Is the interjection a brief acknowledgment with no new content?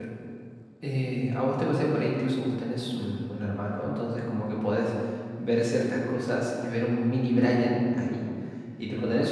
Yes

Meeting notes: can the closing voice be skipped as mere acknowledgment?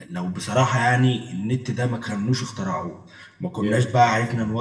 Yes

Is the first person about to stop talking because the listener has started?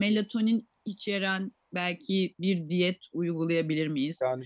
No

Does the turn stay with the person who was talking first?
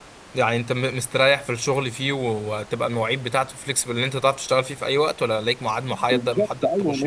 No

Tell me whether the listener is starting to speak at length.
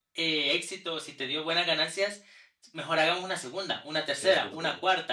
No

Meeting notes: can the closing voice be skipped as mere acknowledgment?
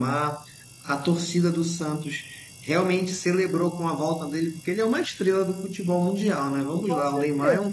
Yes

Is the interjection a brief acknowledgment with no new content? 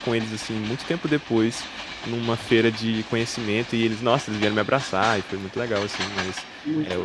Yes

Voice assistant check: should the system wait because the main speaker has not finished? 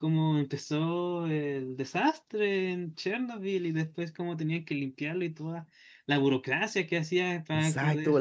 No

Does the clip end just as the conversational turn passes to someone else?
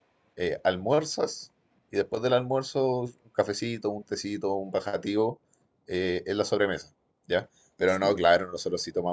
No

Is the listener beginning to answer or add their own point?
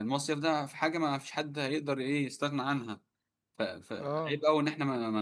No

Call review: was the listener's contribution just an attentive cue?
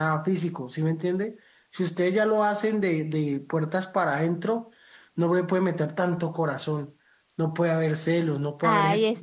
No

